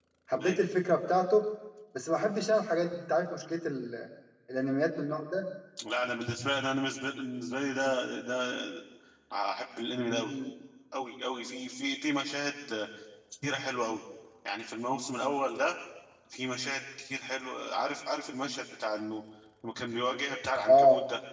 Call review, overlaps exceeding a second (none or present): none